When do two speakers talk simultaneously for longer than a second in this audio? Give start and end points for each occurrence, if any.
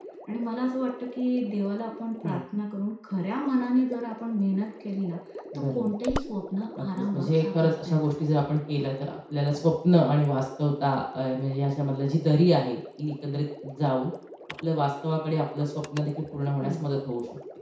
6.8-8.0

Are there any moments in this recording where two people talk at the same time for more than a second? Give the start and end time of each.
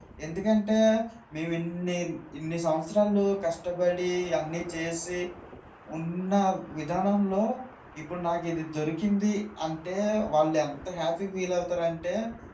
none

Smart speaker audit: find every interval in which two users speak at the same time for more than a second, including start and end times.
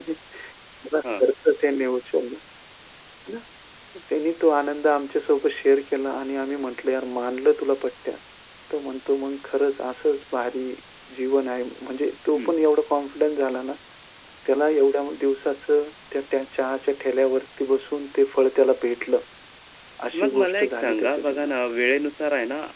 20.2-21.5

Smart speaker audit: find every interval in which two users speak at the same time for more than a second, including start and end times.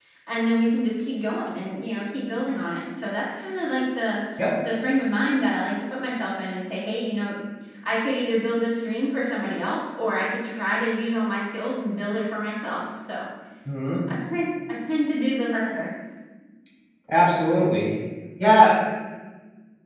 none

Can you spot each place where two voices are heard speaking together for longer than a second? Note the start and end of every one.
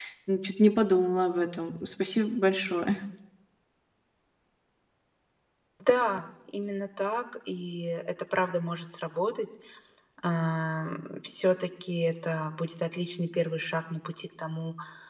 none

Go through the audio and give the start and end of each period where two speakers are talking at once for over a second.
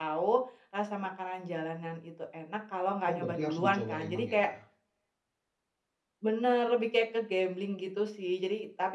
3.1-4.5

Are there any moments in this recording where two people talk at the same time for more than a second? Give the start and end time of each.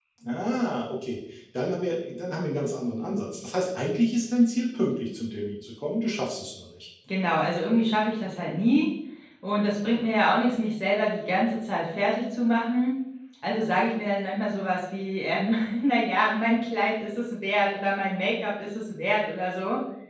none

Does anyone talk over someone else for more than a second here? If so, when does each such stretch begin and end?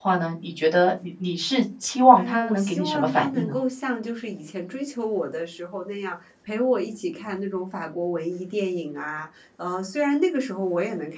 2.2-3.6

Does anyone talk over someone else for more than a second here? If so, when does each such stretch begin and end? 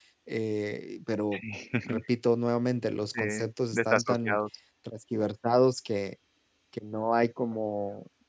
3.1-4.4

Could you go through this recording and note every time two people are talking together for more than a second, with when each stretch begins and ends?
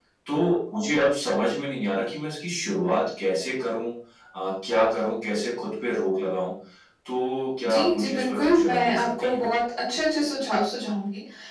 7.6-9.4

